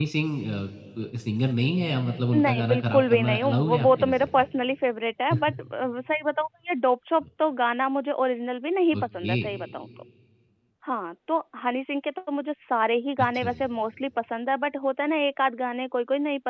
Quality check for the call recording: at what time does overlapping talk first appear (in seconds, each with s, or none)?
2.3 s